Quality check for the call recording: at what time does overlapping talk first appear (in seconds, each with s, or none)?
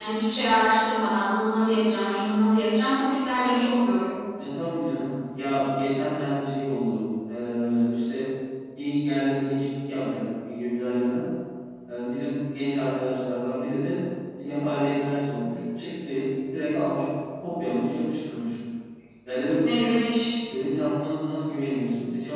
none